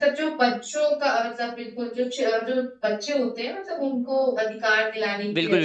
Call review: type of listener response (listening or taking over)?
taking over